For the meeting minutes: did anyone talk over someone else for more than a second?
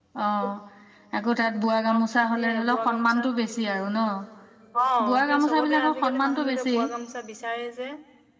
Yes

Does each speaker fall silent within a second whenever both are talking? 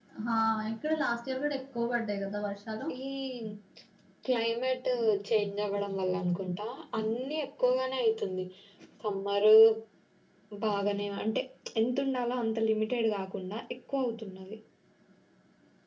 Yes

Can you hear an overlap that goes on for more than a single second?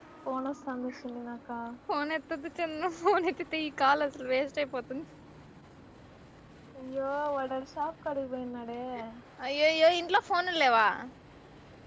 No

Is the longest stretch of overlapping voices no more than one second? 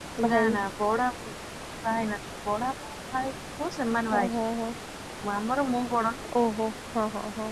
Yes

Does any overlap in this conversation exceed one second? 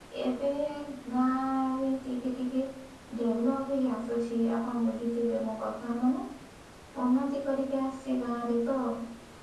No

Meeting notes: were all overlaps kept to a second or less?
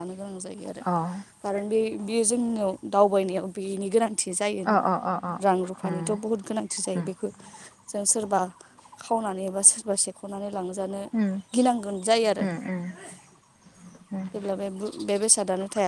Yes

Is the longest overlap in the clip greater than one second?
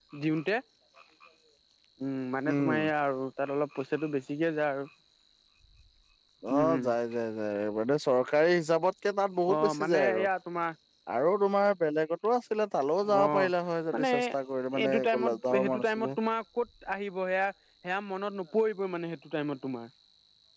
Yes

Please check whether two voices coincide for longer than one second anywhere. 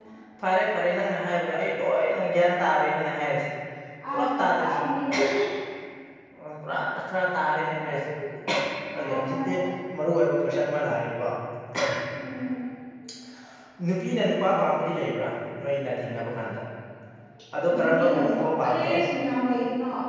Yes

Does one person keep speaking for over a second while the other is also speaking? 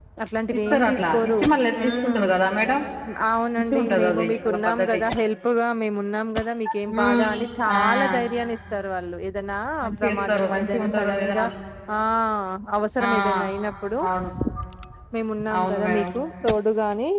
Yes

